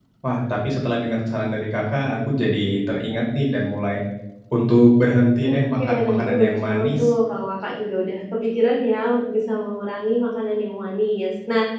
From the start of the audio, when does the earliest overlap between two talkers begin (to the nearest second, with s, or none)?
5 s